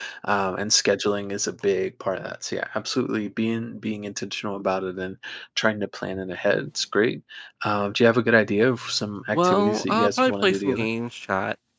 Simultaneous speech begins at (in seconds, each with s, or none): 9.3 s